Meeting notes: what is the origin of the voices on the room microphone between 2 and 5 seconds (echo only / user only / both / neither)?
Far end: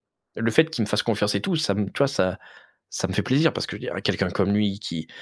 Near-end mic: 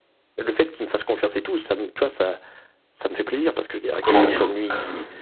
both